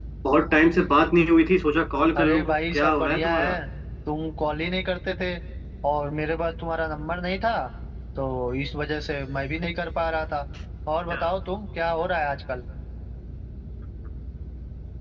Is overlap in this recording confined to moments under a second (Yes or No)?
No